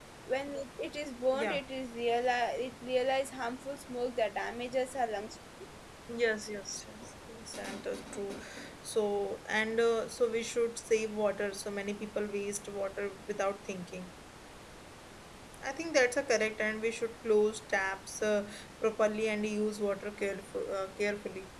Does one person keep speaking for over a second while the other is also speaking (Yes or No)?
No